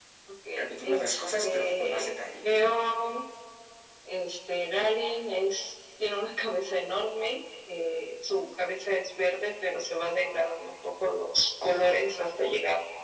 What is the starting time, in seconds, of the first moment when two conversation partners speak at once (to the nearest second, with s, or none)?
1 s